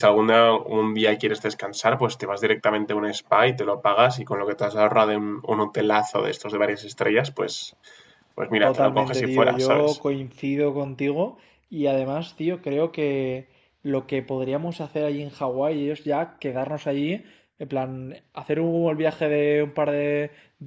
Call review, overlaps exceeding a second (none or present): present